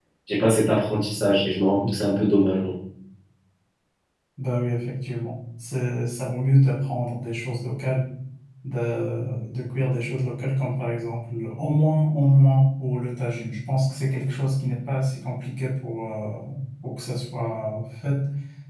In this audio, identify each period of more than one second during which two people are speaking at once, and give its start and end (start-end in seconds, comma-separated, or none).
none